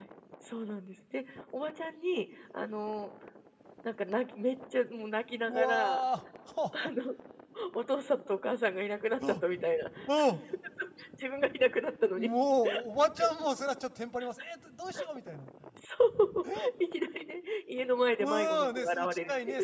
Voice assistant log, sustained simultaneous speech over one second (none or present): present